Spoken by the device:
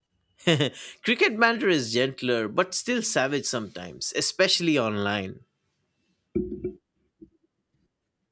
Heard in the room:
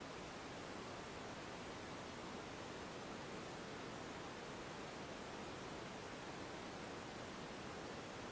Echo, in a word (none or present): none